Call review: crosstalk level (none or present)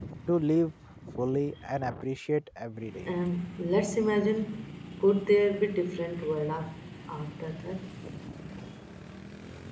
none